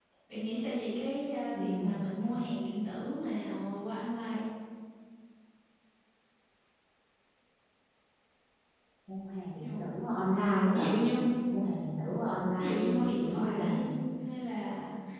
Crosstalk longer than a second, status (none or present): present